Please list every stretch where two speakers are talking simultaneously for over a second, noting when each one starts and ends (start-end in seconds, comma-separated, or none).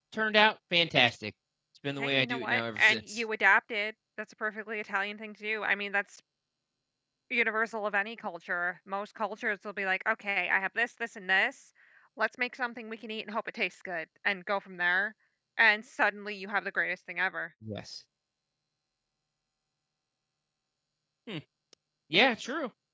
2.0-3.2